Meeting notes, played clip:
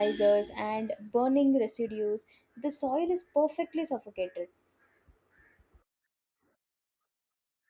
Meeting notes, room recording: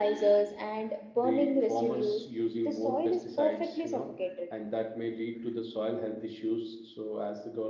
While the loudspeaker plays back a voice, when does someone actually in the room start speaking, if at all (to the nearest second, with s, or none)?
1 s